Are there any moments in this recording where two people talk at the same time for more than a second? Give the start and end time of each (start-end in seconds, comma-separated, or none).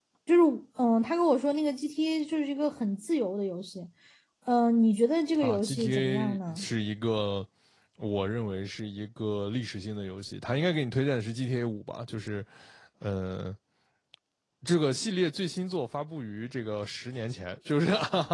5.4-6.7